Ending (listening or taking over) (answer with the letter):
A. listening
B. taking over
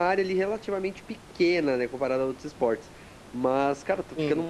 A